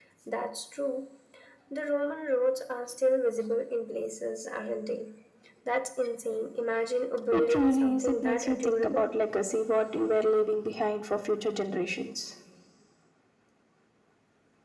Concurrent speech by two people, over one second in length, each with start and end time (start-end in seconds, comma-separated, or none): 7.3-9.1